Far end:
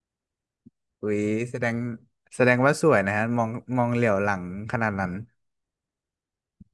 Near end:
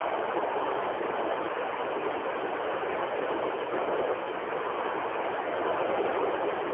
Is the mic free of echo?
Yes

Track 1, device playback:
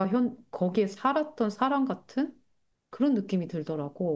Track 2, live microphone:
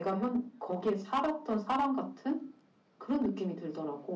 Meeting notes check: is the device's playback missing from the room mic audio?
No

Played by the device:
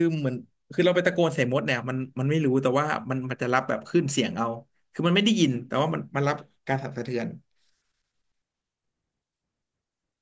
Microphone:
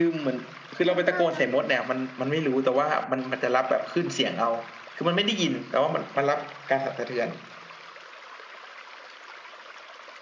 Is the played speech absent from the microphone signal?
No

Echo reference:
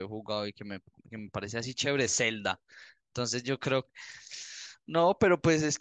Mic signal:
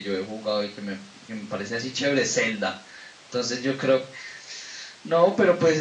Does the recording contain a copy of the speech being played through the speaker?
Yes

